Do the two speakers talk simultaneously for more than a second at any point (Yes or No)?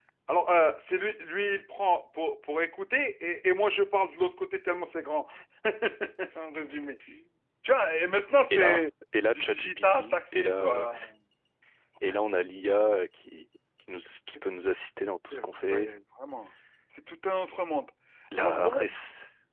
Yes